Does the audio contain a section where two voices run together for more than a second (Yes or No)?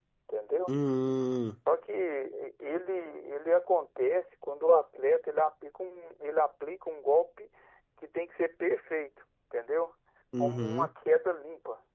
No